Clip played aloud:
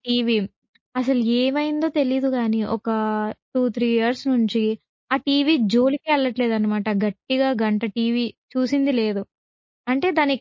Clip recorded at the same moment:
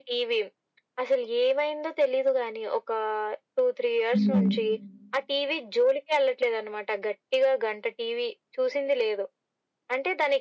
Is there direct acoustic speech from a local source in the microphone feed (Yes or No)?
Yes